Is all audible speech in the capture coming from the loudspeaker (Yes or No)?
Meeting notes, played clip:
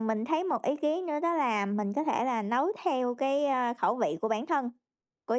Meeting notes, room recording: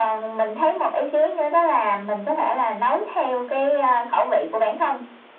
Yes